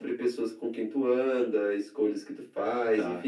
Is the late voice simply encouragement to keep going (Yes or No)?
Yes